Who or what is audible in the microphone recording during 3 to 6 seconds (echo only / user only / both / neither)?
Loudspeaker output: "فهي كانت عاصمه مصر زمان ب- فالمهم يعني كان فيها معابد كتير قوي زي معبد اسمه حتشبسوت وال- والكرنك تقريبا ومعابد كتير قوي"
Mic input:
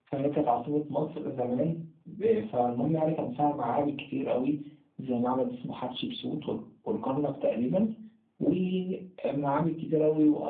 echo only